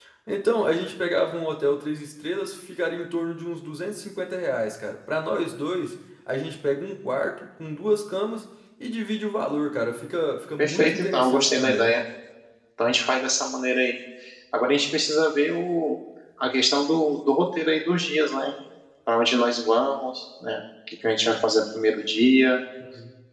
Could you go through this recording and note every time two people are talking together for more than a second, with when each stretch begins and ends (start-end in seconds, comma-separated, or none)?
10.6-11.9